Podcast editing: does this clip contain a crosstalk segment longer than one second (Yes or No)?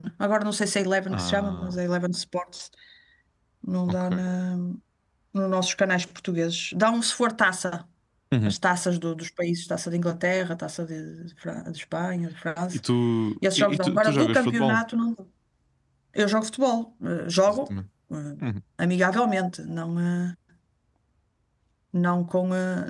Yes